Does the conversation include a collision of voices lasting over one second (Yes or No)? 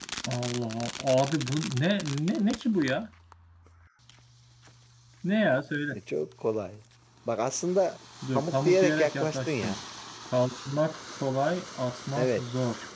Yes